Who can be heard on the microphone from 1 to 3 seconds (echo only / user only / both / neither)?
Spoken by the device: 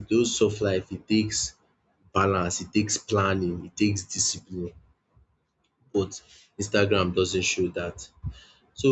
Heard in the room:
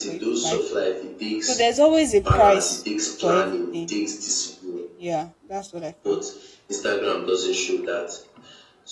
both